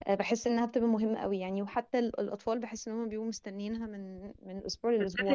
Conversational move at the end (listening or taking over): taking over